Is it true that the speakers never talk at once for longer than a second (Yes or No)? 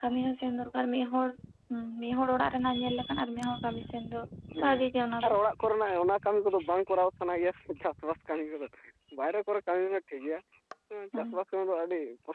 Yes